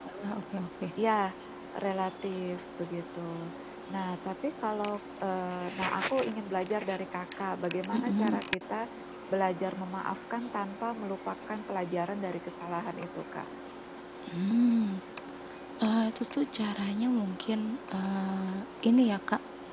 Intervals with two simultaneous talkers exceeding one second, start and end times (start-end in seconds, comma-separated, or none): none